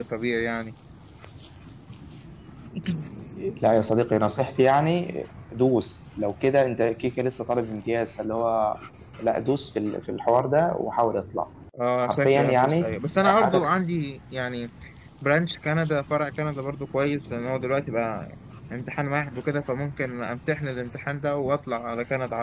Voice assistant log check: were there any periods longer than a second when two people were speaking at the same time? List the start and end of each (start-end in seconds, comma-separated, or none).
12.0-13.7